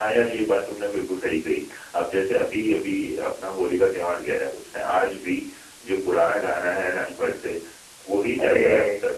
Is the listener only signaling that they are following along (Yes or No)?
Yes